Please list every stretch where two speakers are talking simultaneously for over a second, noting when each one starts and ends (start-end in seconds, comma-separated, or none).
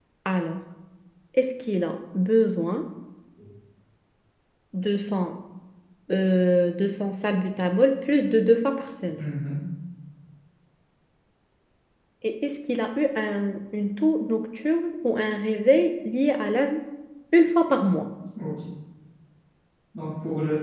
none